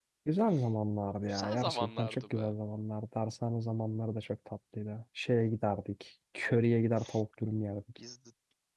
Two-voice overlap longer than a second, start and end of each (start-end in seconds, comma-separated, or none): 1.3-2.5